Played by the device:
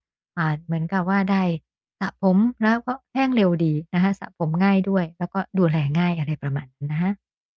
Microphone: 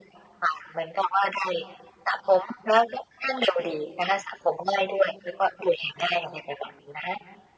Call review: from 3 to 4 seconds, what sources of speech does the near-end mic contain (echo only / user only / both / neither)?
echo only